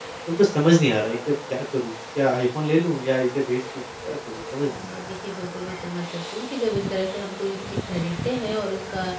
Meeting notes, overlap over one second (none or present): none